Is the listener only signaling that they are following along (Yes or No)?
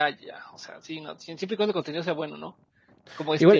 No